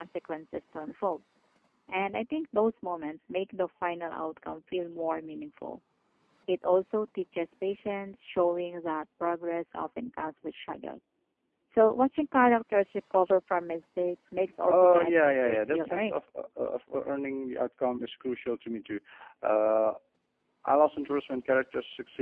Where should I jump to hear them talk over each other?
14.6 s

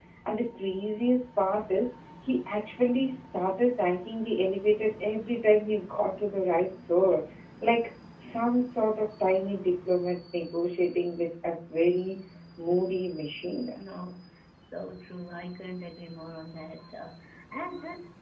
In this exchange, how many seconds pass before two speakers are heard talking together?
none

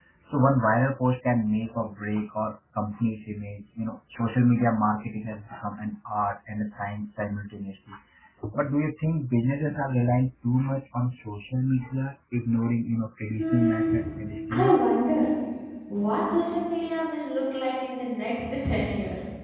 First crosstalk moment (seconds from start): 13.3 s

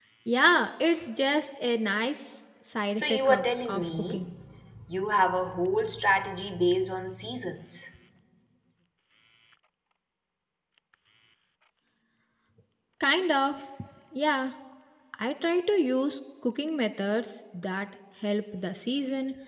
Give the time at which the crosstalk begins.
3.0 s

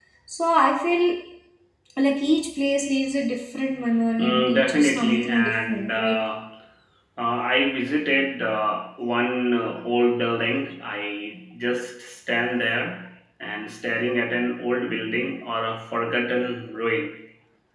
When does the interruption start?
4.2 s

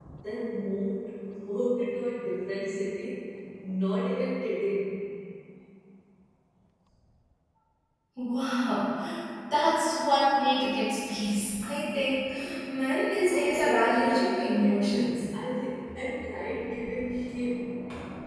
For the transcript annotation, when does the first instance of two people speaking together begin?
13.2 s

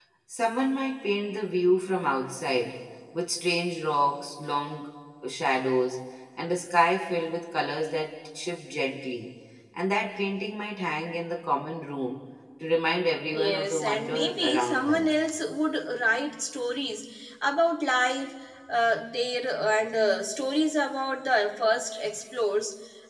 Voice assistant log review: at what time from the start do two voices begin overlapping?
13.3 s

